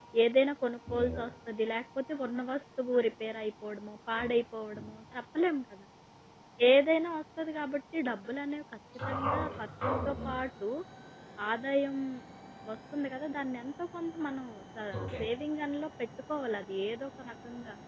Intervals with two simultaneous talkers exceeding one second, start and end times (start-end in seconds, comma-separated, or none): 9.1-10.4